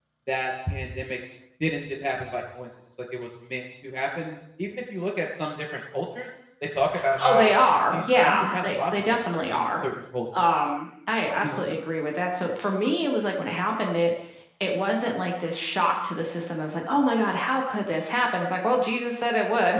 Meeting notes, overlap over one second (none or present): present